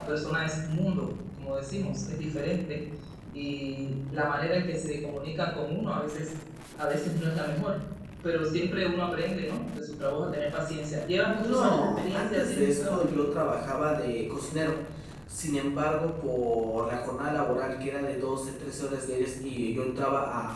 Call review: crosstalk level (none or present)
present